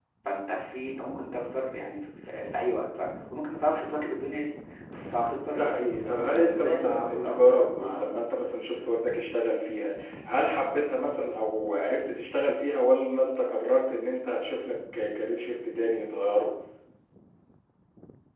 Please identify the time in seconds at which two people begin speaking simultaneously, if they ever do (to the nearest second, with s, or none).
5 s